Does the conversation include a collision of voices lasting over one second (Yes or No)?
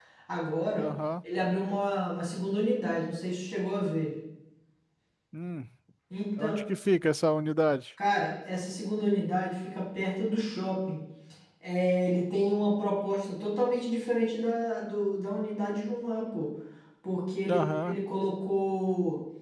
No